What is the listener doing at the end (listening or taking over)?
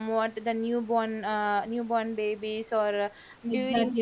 taking over